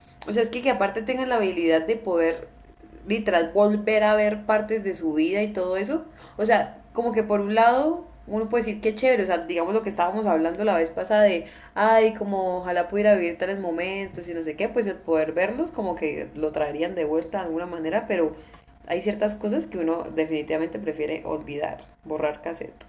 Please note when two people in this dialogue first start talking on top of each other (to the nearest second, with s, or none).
none